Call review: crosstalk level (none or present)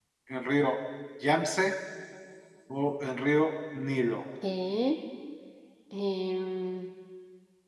none